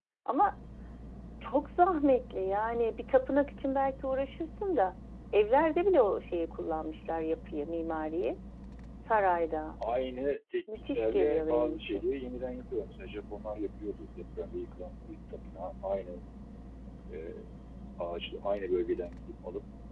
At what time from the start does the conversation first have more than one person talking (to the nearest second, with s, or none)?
11 s